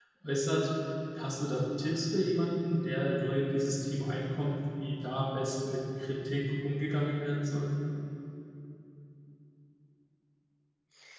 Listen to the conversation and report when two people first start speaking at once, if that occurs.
none

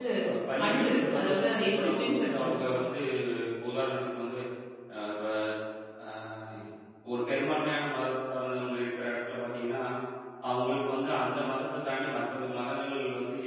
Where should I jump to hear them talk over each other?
0.7 s

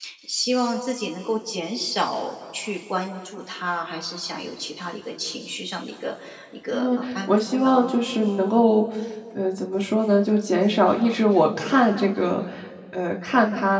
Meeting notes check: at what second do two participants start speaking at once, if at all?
6.7 s

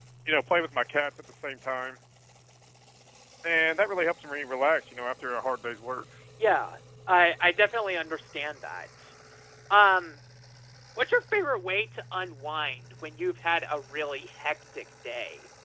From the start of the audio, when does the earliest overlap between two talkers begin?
none

